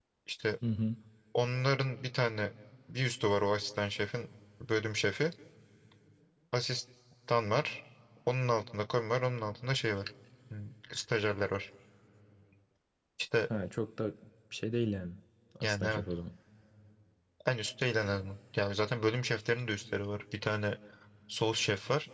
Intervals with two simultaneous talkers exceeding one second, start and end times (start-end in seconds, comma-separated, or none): none